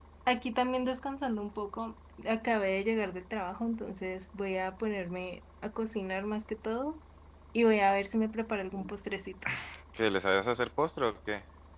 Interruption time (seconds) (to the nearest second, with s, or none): none